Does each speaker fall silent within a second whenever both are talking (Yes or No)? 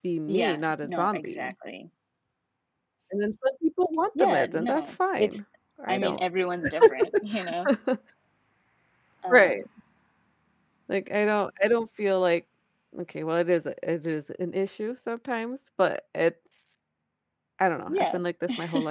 No